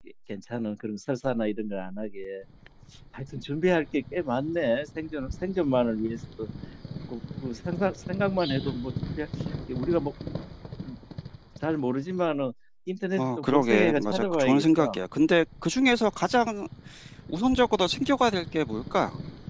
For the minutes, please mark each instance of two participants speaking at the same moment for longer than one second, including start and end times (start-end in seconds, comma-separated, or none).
13.2-15.0